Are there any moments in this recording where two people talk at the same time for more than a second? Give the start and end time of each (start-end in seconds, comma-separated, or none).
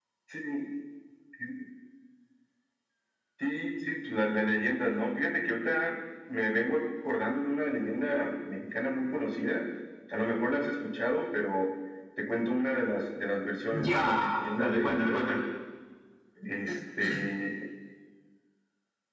13.7-15.4